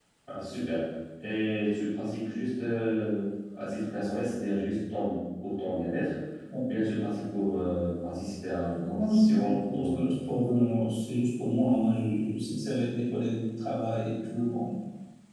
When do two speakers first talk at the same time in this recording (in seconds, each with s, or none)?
8.7 s